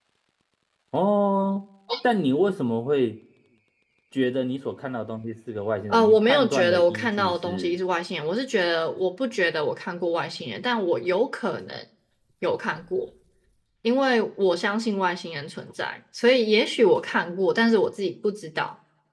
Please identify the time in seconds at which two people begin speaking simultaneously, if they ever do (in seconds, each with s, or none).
5.9 s